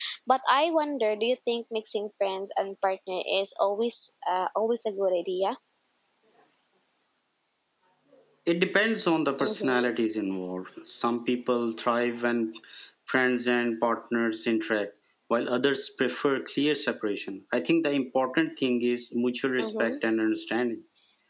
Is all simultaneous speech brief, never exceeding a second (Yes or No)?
Yes